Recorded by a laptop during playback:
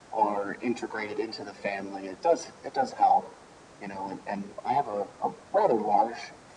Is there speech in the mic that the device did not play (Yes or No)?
No